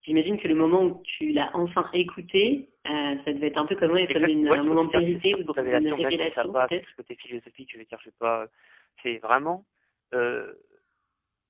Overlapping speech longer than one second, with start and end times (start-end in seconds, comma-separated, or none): 4.1-6.8